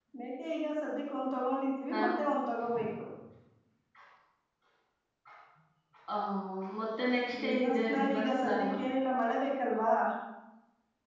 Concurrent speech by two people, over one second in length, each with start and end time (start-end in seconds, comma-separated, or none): 7.4-8.7